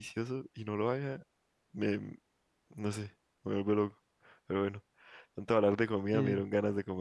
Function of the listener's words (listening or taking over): listening